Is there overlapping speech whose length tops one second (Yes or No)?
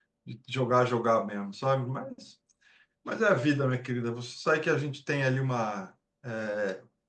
No